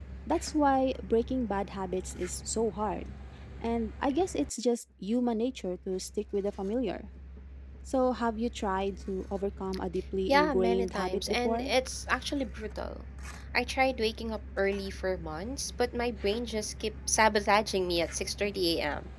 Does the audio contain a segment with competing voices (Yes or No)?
Yes